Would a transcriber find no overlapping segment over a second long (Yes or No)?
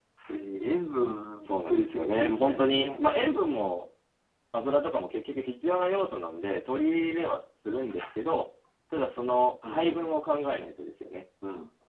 No